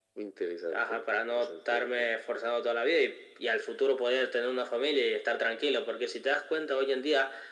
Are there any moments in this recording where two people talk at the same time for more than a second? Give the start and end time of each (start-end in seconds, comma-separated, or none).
0.7-2.1